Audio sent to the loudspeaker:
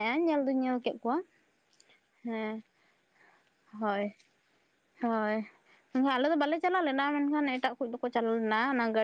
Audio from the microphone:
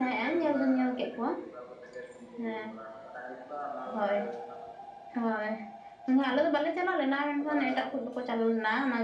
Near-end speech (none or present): present